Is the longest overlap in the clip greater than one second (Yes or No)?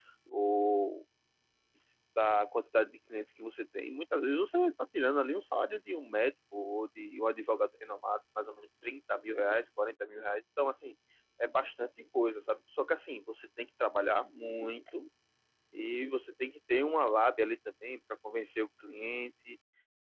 No